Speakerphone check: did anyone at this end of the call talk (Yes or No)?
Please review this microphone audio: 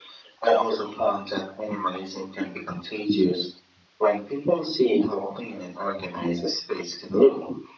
No